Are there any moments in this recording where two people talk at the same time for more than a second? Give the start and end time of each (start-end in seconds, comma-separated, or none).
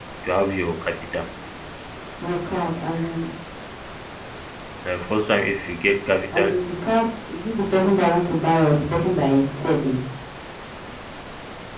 none